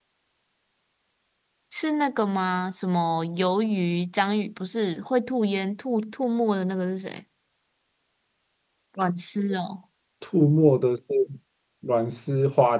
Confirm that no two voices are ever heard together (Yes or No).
Yes